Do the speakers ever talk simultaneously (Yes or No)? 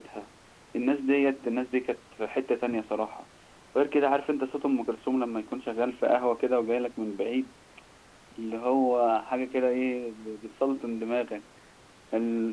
No